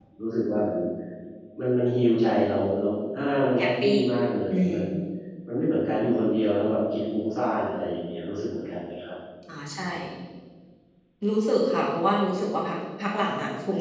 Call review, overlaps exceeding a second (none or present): none